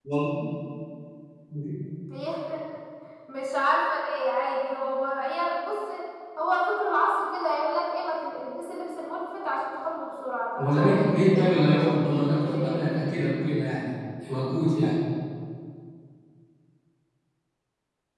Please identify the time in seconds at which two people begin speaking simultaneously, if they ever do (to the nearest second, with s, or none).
11 s